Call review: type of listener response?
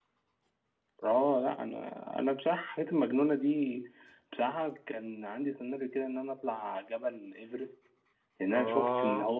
listening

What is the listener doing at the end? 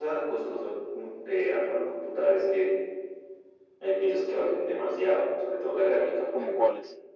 taking over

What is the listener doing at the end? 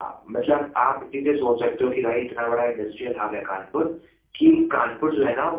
listening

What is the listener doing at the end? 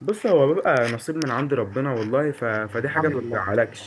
listening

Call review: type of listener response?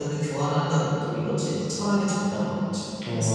taking over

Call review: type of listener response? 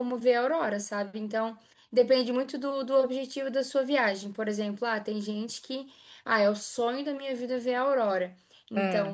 listening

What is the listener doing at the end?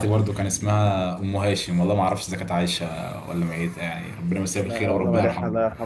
taking over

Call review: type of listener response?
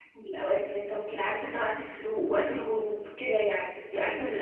taking over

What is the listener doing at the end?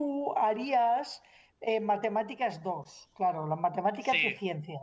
listening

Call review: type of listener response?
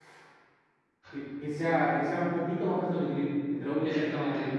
taking over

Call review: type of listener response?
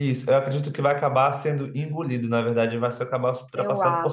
listening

